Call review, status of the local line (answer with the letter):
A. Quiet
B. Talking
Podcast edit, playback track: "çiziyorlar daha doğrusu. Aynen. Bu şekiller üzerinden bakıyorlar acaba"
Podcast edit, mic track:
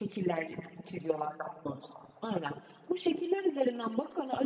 A